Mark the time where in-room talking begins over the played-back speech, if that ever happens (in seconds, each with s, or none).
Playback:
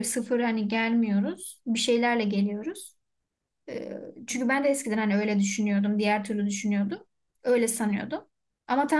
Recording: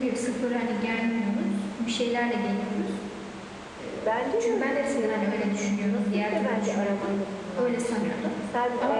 4.0 s